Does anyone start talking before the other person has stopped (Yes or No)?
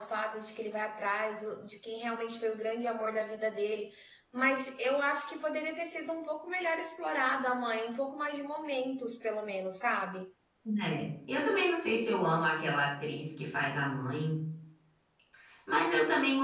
No